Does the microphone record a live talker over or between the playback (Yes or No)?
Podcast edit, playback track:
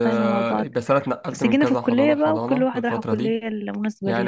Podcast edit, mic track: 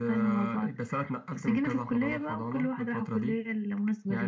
No